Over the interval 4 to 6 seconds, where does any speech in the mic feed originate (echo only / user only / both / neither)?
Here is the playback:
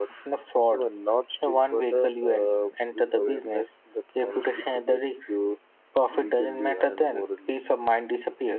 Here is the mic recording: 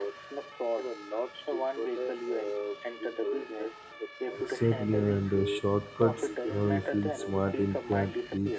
both